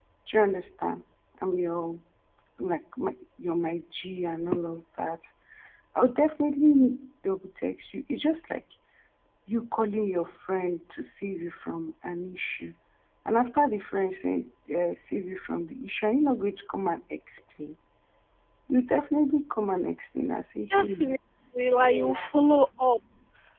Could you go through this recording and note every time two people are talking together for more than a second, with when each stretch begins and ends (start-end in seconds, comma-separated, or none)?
none